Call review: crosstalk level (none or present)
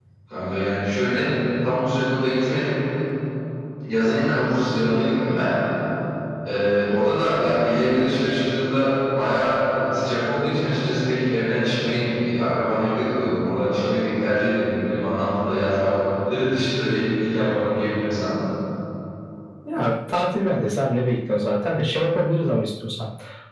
none